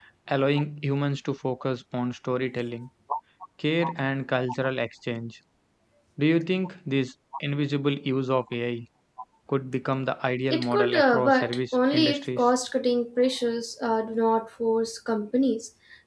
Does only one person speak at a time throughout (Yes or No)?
No